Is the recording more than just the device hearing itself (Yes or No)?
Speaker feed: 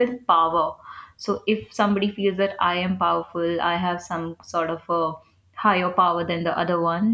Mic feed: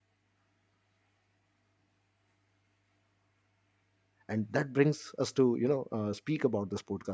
Yes